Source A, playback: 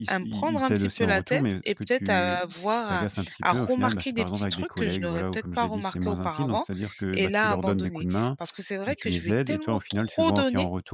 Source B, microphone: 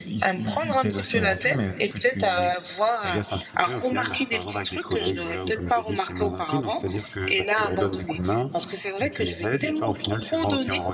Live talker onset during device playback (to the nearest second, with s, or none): none